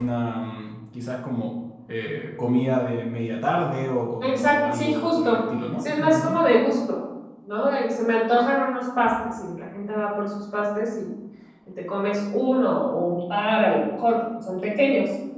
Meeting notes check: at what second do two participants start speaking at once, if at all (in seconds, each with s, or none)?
4.2 s